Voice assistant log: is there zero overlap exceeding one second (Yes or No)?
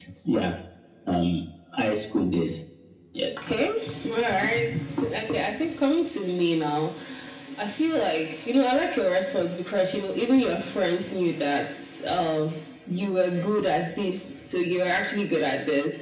Yes